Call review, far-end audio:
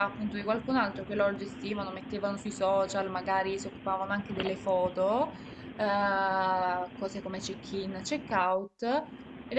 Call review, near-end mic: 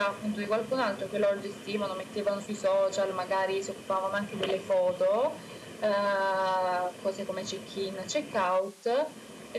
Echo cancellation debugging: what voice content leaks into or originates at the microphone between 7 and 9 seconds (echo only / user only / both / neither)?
echo only